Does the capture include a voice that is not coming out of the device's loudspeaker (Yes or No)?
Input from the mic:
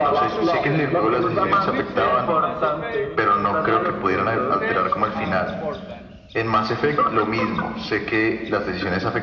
Yes